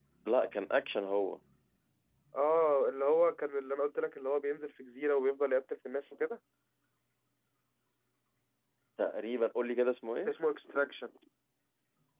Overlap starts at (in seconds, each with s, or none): none